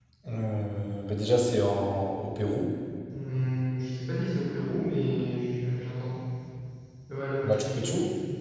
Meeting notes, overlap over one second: none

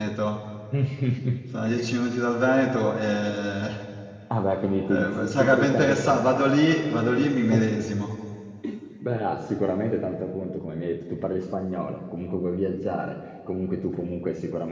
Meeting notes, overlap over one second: present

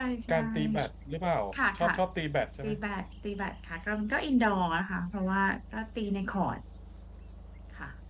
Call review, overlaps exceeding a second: none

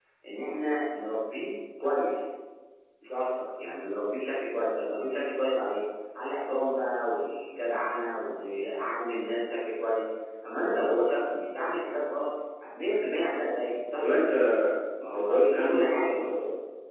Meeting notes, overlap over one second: present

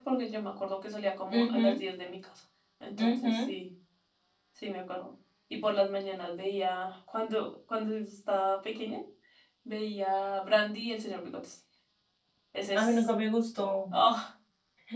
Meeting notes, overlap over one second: none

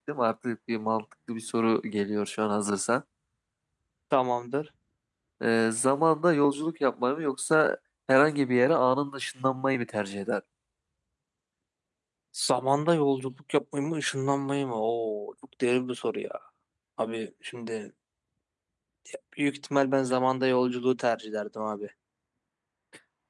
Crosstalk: none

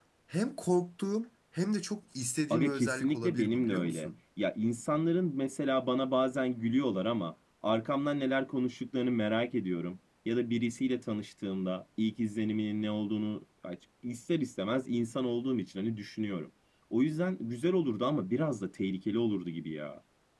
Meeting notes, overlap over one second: present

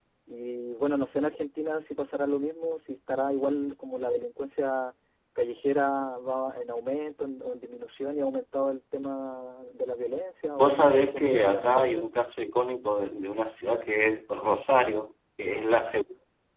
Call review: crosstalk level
present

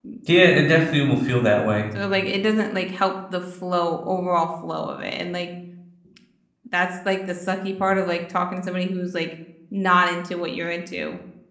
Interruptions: none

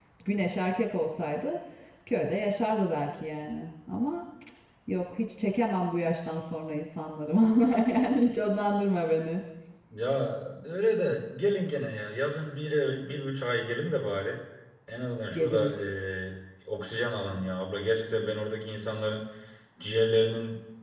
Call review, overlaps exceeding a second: none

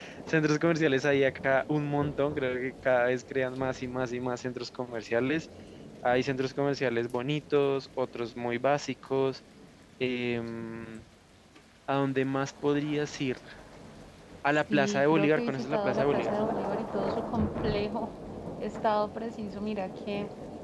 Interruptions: present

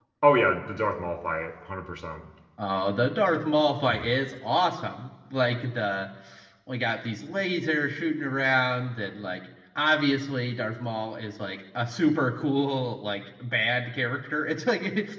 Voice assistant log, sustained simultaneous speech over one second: none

